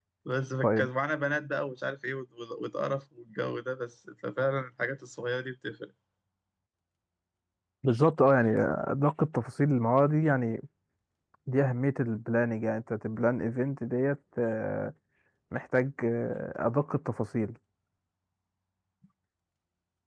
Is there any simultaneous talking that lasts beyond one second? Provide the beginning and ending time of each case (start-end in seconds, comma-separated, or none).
none